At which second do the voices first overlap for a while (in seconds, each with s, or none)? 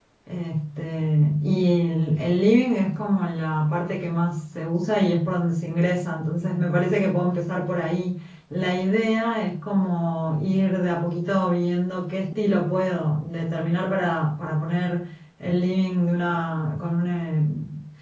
none